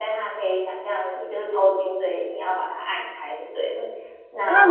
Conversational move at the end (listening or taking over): taking over